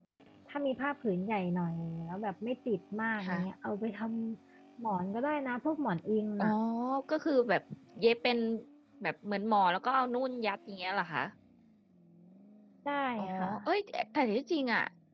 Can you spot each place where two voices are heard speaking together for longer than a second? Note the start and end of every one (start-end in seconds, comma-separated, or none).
none